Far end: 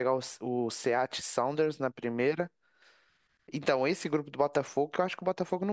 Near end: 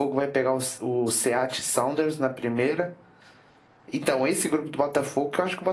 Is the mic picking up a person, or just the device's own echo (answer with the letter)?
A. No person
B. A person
A